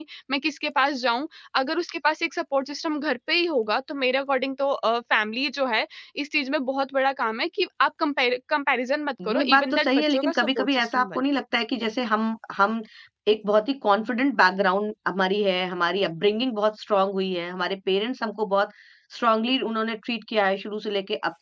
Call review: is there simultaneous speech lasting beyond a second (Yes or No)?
Yes